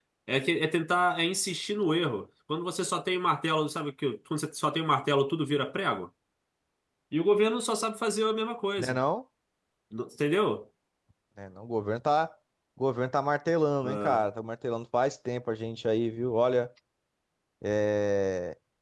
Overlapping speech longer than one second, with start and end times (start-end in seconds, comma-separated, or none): none